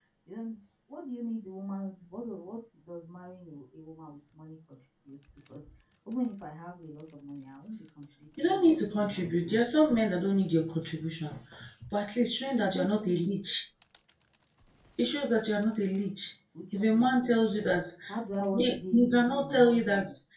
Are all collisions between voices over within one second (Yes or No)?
No